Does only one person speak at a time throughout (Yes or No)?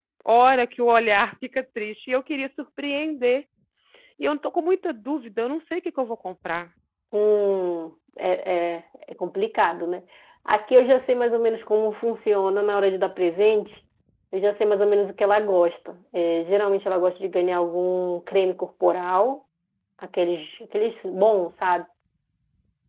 Yes